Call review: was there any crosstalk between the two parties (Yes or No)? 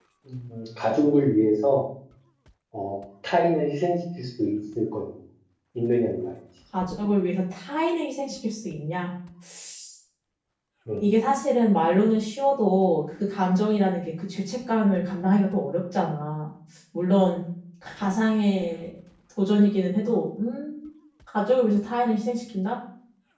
No